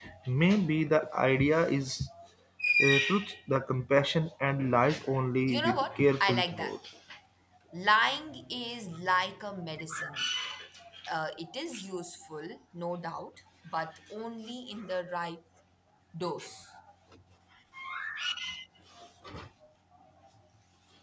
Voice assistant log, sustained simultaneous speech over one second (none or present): present